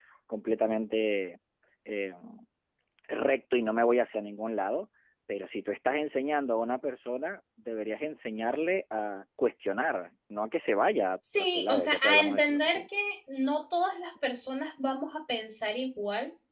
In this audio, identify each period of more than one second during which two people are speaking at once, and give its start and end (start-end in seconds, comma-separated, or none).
11.4-12.8